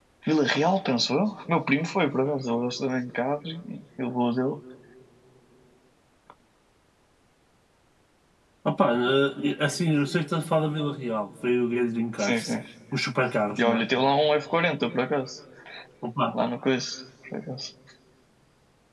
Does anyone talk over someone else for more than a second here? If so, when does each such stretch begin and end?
none

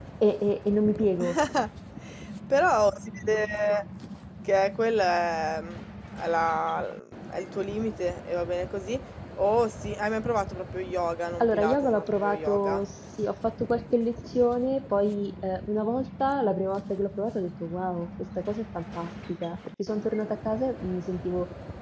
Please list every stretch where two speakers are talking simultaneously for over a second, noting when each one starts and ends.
11.4-12.8

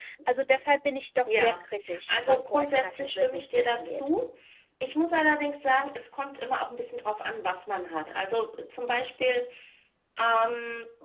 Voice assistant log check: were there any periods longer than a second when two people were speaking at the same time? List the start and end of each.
2.1-4.1

